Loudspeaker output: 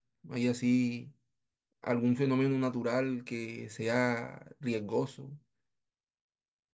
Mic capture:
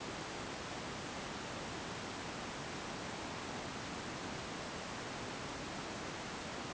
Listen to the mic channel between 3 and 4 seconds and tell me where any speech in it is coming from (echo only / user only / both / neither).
neither